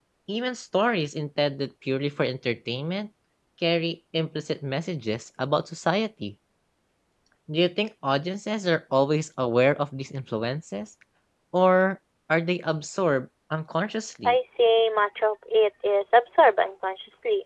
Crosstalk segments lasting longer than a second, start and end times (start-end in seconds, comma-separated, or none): none